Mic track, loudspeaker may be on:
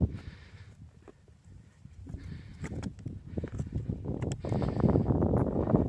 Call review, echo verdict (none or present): none